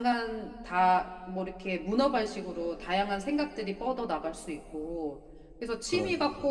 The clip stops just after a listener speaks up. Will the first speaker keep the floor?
Yes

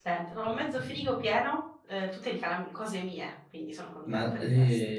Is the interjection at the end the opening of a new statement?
Yes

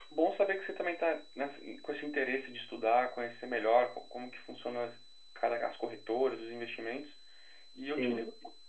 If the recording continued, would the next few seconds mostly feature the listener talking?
No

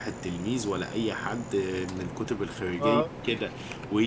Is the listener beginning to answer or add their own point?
No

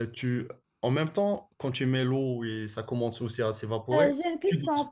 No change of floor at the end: No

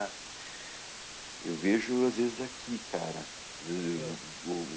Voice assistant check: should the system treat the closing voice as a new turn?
No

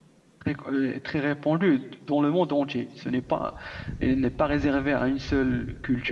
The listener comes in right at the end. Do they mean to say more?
No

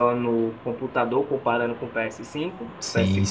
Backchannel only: No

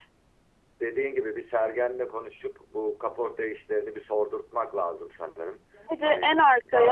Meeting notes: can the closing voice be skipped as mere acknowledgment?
No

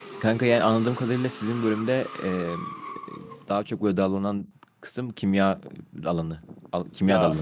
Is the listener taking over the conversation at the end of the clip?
Yes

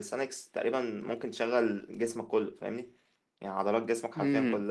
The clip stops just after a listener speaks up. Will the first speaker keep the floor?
Yes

